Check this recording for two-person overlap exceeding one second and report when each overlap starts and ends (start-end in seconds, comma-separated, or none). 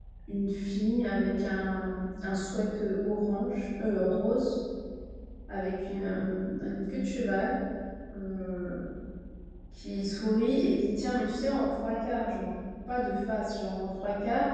none